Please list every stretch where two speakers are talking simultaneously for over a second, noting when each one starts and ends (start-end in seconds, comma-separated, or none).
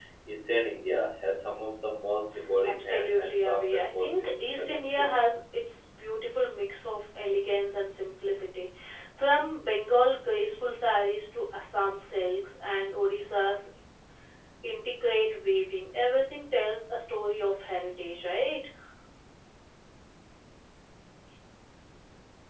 2.8-5.1